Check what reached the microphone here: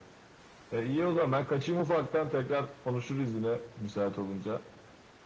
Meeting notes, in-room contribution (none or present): none